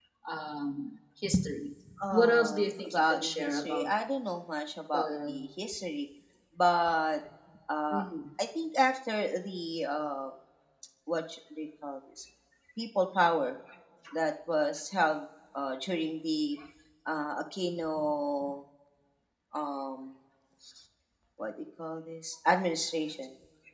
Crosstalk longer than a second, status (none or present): present